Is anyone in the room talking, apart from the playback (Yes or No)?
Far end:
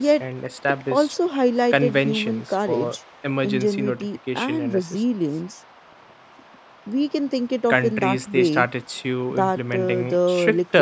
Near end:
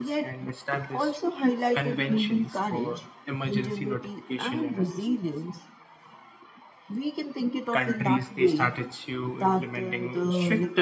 No